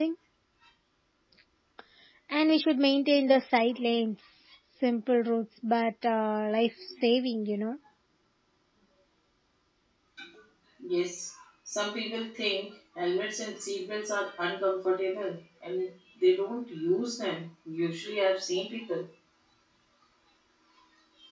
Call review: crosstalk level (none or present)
none